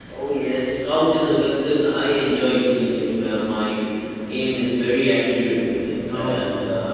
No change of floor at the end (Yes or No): Yes